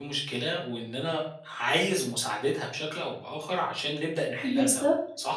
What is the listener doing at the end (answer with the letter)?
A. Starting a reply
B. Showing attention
A